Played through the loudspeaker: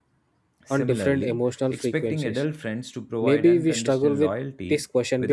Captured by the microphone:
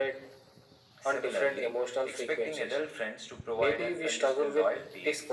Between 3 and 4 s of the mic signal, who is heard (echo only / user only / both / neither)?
echo only